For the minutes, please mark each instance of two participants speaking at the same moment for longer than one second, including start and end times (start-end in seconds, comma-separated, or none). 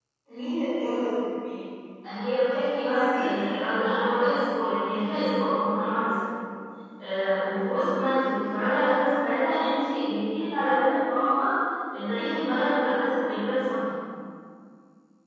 2.1-3.6